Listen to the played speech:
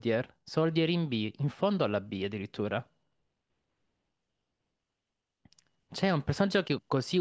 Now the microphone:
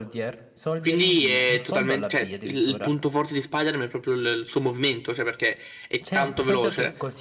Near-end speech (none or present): present